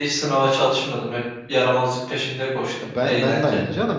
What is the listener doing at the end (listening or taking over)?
taking over